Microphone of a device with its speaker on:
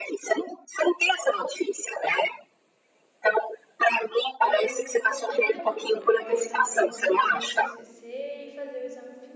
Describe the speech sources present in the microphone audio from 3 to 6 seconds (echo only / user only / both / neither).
both